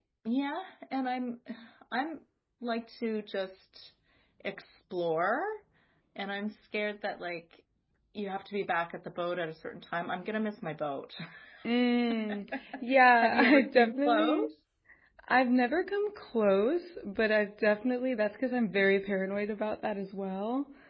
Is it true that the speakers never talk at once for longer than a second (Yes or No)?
No